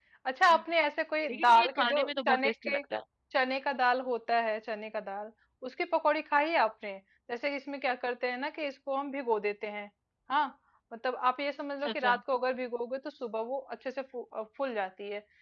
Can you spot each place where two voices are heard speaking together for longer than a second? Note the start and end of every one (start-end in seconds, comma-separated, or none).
1.3-2.8